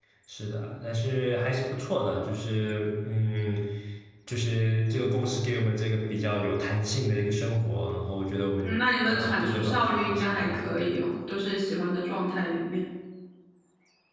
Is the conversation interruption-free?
No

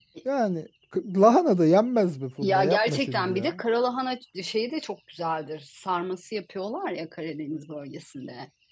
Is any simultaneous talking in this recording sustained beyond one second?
Yes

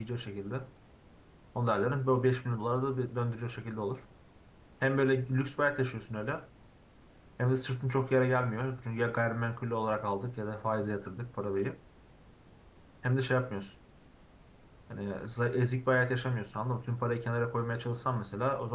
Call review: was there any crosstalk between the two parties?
No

